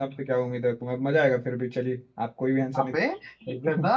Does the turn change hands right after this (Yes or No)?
Yes